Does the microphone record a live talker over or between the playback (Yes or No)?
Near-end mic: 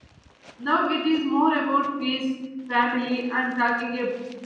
Yes